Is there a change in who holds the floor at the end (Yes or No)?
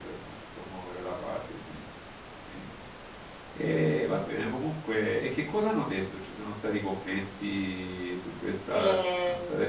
Yes